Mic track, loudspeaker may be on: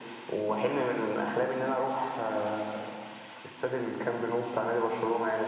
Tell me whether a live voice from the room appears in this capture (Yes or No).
No